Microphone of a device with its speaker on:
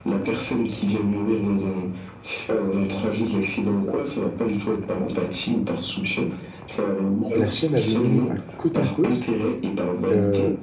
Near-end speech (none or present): present